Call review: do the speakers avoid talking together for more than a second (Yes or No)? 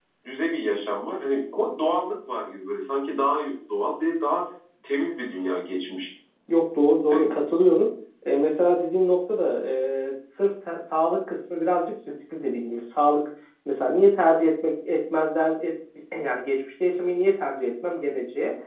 Yes